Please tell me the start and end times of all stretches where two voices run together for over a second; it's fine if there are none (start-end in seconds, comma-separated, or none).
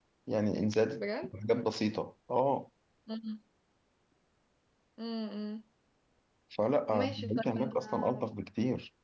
6.9-8.2